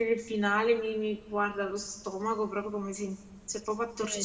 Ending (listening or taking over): taking over